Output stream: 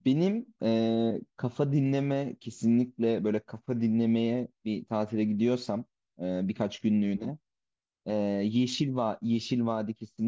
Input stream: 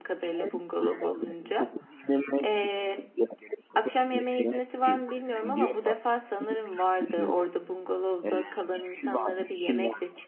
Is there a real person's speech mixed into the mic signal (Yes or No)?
Yes